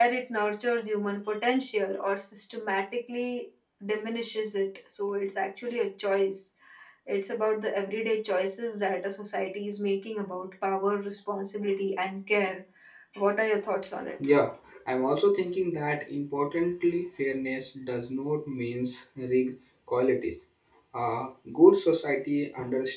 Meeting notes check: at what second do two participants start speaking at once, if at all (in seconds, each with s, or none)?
none